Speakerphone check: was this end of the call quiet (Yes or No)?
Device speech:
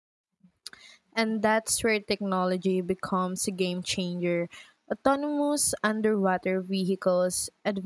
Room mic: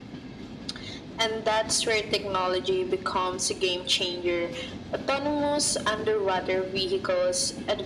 Yes